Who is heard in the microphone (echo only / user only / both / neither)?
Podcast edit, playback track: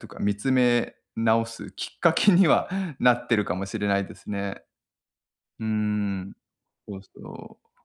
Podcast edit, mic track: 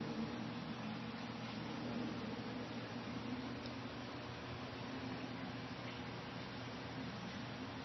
neither